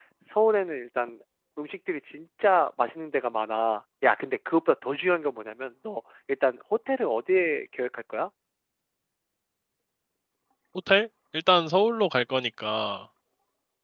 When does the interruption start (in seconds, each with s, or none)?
none